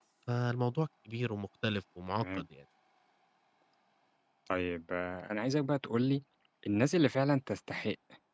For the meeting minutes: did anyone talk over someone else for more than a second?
No

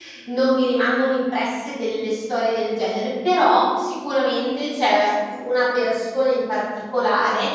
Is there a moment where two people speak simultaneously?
No

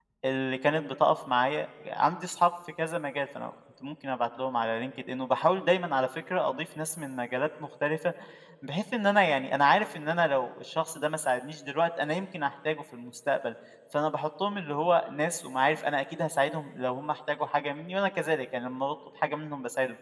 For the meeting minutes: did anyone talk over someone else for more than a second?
No

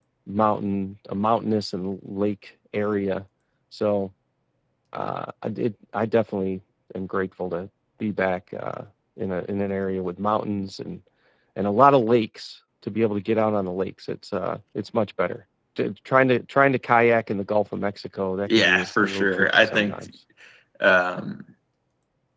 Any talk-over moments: Yes, from 18.5 s

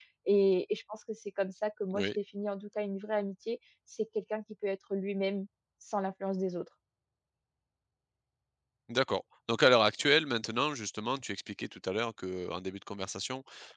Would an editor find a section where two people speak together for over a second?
No

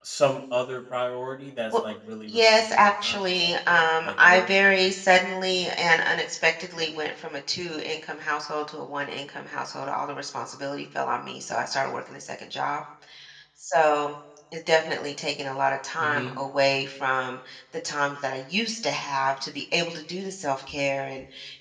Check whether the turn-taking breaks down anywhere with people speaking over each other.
Yes, from 2.3 s

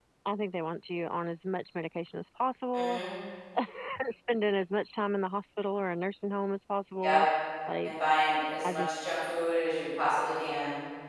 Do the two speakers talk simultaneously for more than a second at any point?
No

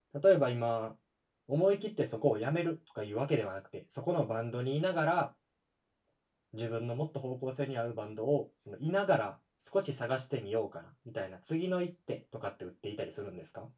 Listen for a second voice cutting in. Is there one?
No

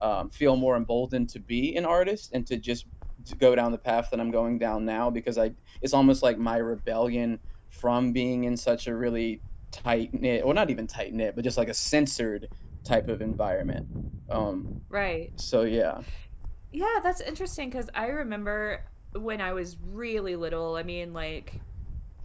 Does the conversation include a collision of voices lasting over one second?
No

